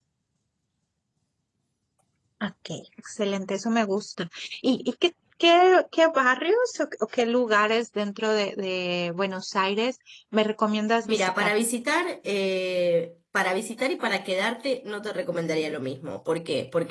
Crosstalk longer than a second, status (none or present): none